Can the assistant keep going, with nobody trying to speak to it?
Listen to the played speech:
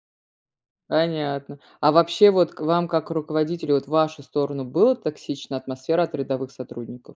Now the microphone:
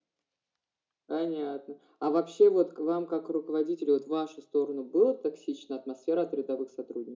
Yes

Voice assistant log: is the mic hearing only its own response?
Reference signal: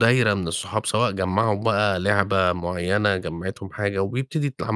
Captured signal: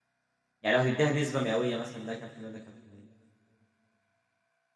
No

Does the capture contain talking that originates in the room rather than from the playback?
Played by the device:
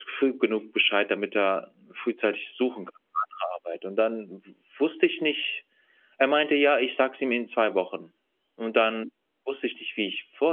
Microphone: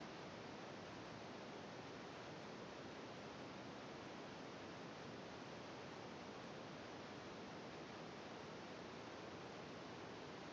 No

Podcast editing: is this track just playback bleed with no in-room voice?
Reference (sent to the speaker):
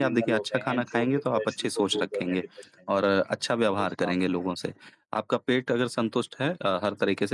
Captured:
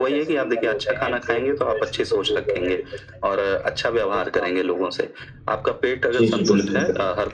No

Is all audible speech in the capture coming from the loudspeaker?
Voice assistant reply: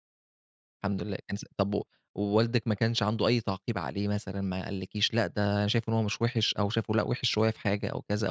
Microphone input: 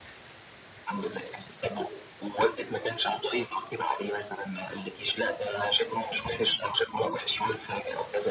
Yes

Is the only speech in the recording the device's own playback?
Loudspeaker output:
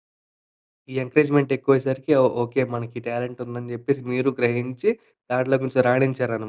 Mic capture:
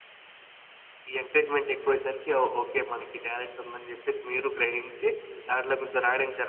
No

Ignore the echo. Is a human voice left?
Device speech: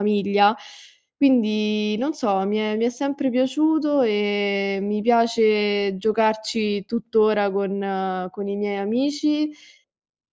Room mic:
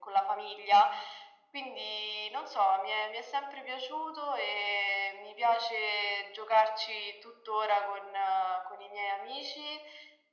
No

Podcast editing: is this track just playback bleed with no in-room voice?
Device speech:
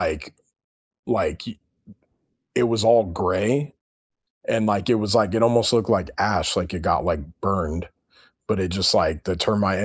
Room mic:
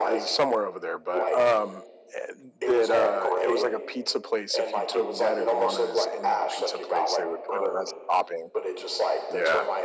No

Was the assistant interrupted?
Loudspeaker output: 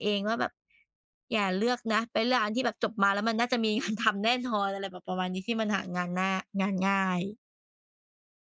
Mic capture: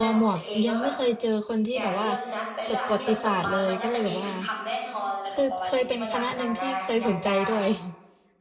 Yes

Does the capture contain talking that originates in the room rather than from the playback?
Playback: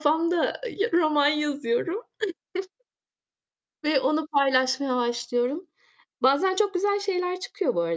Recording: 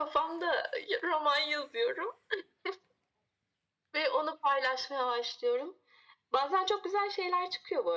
No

